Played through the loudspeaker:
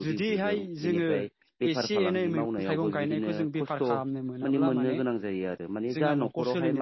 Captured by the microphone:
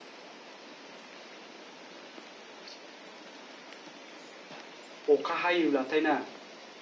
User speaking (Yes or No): Yes